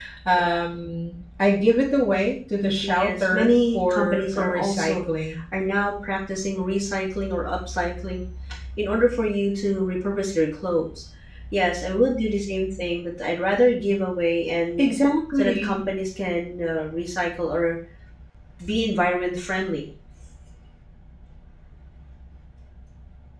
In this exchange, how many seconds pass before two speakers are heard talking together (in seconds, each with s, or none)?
2.8 s